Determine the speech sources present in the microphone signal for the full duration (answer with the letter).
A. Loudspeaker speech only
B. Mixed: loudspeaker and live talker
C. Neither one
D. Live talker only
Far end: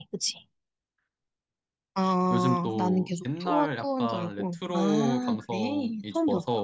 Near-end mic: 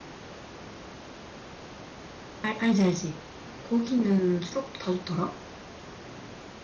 D